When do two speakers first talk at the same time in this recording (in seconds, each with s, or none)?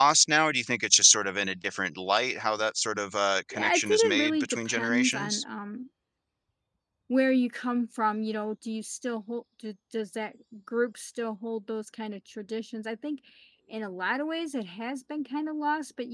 3.5 s